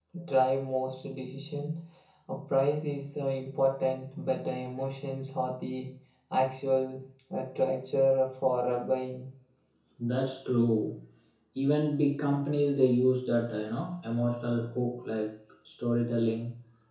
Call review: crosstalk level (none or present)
none